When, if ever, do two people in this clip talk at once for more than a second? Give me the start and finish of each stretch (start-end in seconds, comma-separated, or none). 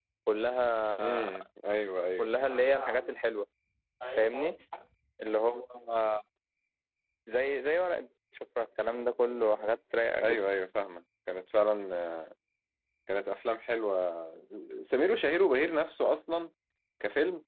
none